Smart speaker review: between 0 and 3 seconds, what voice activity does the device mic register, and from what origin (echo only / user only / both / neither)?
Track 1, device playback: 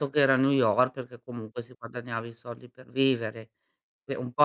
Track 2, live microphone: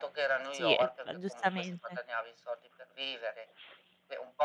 both